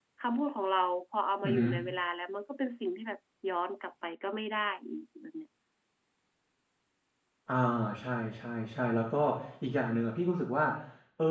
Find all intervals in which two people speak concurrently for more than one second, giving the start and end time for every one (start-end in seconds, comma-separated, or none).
none